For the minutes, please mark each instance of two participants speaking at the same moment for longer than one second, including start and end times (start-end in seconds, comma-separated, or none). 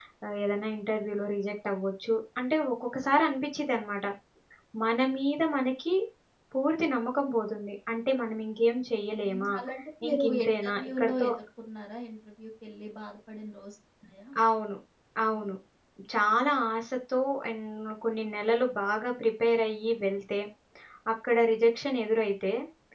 10.1-11.3